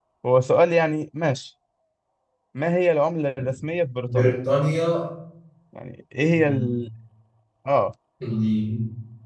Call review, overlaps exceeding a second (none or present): none